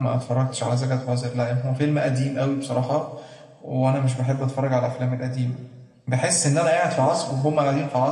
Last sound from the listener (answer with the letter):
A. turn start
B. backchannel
B